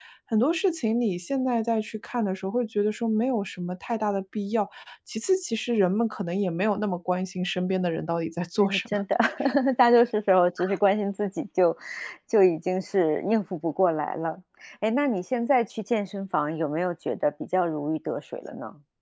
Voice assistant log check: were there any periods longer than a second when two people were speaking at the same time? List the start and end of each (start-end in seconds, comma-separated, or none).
none